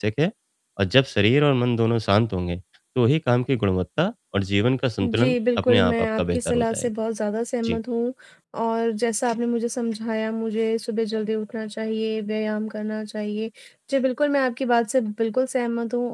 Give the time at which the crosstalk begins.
5 s

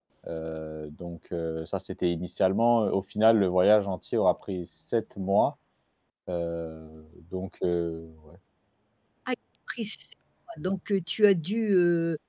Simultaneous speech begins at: none

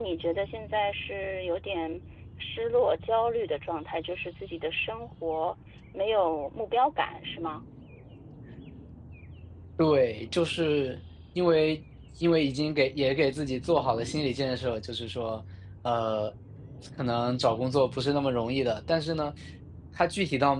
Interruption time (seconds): none

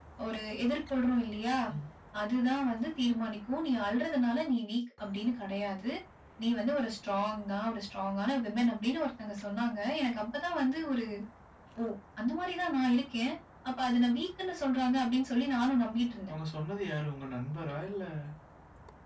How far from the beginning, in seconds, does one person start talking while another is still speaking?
none

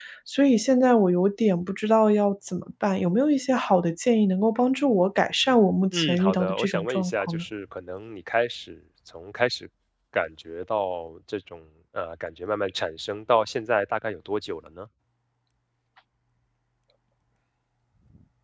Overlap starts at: 6 s

